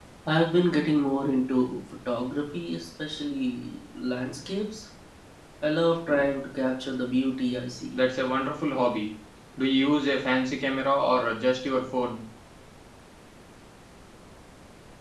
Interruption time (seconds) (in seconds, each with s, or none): none